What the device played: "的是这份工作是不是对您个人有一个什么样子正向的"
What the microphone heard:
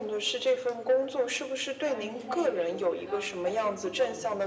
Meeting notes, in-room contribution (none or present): present